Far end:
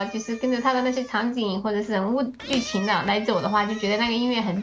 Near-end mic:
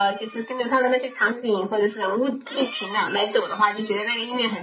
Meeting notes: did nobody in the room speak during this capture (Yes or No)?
Yes